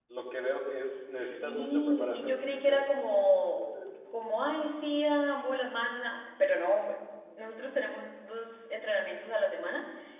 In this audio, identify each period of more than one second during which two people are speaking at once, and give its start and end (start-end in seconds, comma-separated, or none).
1.1-2.8